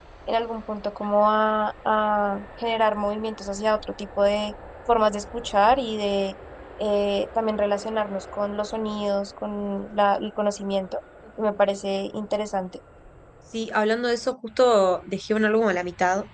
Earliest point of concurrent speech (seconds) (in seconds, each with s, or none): none